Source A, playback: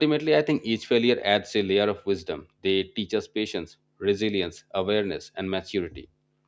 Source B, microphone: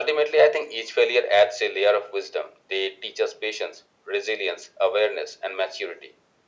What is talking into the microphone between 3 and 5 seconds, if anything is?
echo only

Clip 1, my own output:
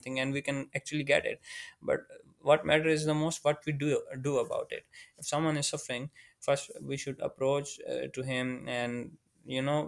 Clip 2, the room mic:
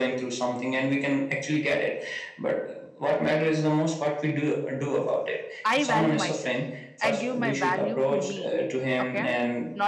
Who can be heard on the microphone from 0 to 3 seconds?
echo only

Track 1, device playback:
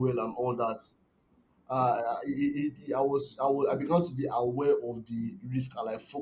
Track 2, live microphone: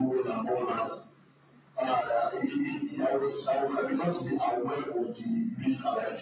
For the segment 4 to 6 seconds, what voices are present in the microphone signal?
echo only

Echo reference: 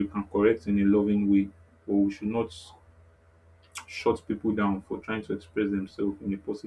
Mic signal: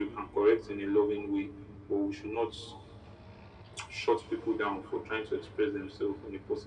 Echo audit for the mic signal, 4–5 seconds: echo only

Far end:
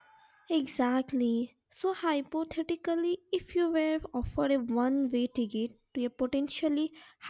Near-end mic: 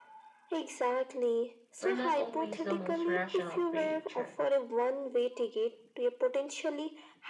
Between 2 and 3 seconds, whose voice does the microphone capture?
both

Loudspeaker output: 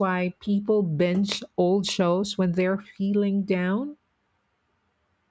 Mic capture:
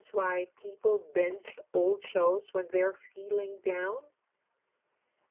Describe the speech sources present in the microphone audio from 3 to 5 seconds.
echo only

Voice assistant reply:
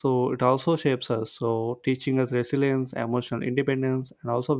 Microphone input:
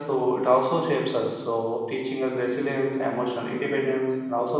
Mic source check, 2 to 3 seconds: echo only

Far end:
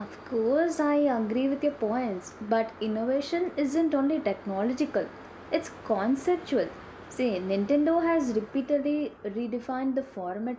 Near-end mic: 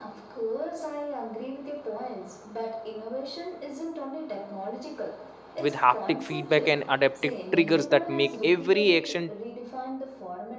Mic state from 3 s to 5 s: echo only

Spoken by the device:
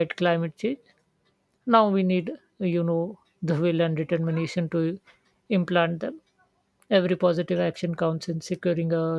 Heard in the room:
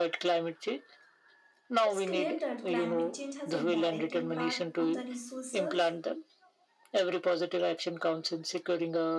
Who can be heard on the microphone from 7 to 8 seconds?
echo only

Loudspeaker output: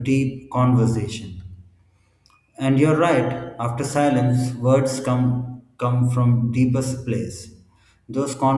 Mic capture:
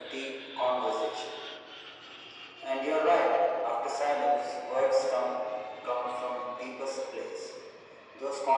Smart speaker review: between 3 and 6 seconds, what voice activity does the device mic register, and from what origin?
echo only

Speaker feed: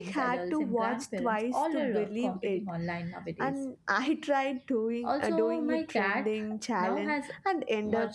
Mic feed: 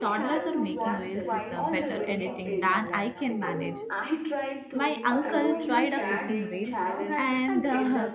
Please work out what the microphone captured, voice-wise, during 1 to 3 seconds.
both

